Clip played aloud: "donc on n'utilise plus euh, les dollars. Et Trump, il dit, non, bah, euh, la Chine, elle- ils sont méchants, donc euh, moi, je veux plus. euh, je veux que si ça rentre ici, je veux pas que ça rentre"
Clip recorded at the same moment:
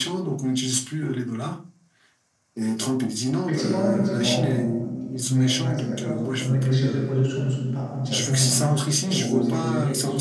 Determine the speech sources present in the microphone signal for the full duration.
both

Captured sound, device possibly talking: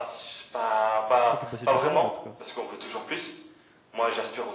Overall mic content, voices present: both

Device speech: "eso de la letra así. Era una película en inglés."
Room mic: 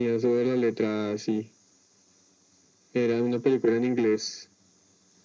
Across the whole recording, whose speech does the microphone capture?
echo only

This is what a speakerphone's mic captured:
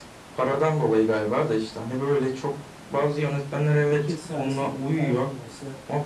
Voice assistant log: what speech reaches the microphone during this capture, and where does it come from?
both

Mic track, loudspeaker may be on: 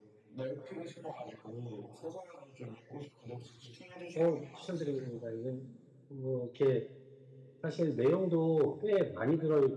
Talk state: both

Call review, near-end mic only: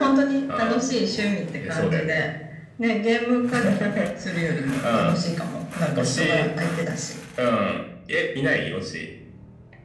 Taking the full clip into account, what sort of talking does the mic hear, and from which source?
echo only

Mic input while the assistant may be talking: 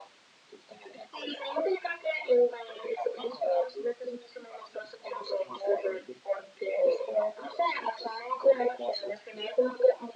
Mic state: echo only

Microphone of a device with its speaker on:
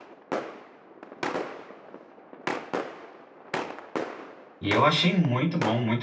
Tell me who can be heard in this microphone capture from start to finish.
user only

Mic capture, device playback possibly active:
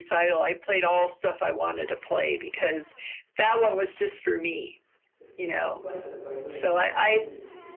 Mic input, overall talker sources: both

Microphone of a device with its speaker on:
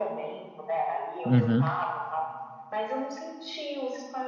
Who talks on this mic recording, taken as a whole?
both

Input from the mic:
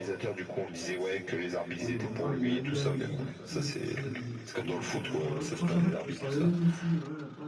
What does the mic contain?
both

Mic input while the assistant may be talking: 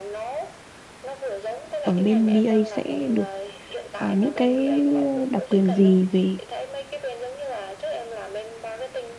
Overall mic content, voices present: both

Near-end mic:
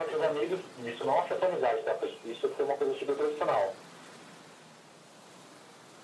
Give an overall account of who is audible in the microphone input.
echo only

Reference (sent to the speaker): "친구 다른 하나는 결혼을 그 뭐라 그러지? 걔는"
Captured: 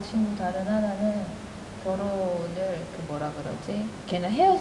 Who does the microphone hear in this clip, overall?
echo only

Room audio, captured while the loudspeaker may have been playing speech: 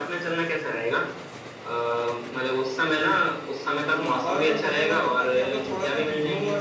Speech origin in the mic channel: echo only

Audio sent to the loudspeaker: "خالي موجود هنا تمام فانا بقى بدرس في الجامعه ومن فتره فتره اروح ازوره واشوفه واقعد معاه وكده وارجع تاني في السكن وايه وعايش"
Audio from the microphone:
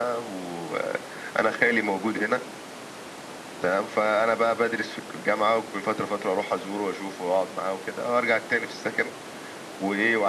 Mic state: echo only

